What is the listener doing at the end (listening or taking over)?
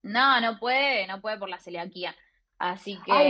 taking over